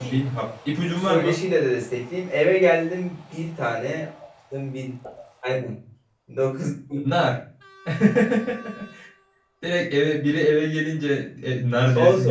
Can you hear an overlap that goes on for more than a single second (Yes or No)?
No